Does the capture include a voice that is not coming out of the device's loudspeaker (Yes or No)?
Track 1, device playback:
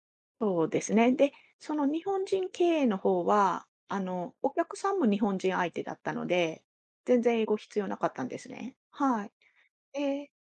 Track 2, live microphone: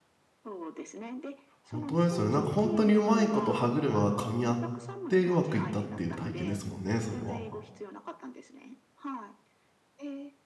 Yes